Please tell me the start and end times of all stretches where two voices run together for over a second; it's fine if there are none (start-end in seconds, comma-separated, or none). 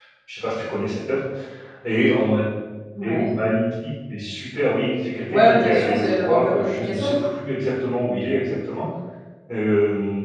5.3-7.1